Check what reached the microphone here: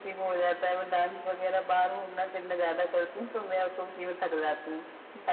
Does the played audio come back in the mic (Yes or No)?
Yes